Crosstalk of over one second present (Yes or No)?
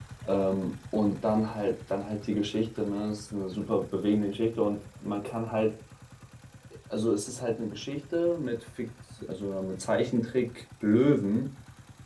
No